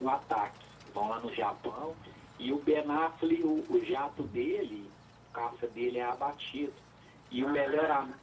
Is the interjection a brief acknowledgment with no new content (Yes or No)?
Yes